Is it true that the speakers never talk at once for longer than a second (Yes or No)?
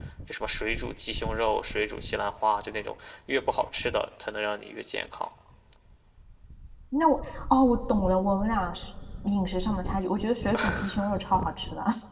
Yes